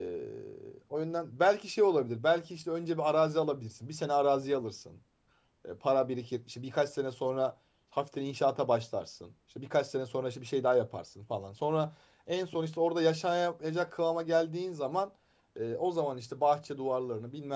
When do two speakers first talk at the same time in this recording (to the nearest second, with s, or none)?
none